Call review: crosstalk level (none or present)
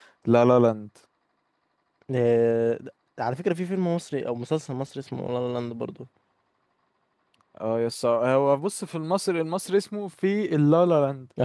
none